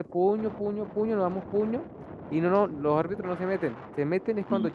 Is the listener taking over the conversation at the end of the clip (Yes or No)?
No